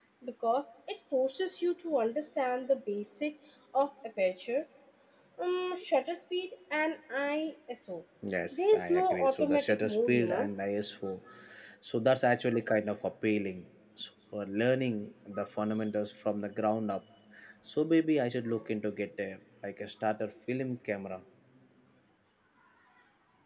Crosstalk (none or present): present